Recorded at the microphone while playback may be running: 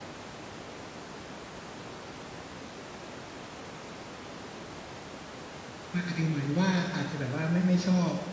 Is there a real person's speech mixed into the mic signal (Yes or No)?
Yes